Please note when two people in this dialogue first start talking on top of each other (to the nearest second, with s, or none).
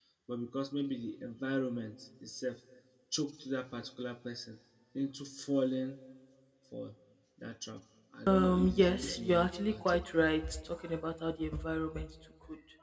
8 s